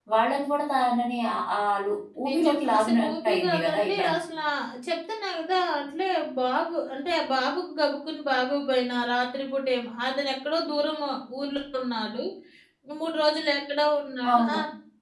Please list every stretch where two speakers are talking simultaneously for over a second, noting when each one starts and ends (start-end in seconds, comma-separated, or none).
2.3-4.1